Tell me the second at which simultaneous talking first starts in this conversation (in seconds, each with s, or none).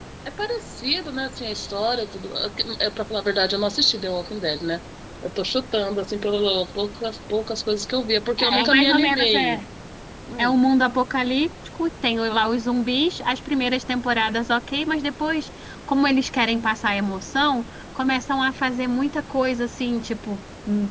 8.4 s